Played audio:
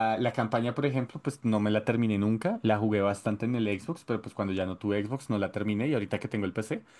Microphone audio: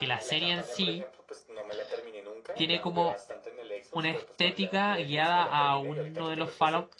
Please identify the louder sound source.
user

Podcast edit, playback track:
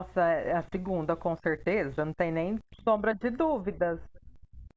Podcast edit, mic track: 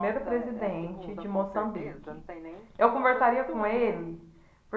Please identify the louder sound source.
user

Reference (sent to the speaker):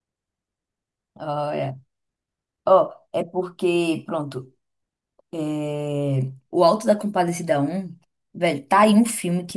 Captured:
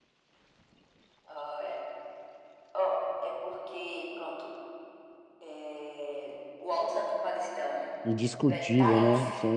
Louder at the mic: user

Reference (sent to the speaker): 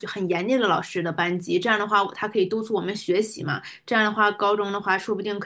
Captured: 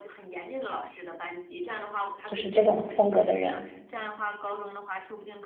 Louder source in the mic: user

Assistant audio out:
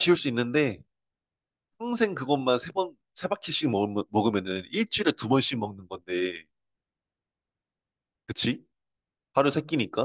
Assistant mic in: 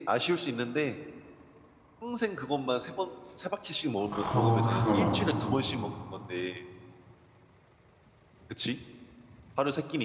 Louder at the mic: user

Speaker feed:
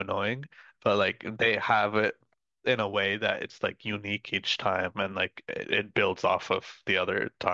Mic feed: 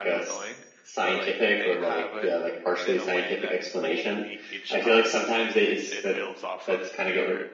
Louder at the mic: user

